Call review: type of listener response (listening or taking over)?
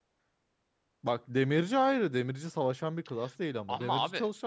listening